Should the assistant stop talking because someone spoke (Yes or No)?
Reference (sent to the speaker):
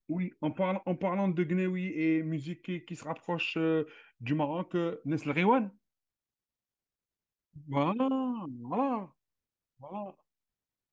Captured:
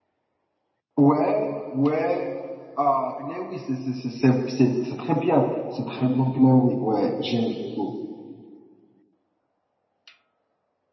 Yes